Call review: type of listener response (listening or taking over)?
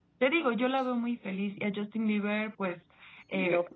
listening